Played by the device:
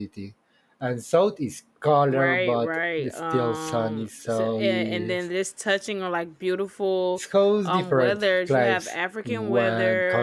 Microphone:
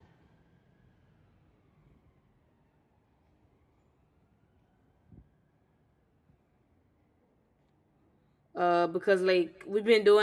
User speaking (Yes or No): Yes